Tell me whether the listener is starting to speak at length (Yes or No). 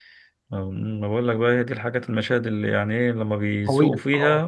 No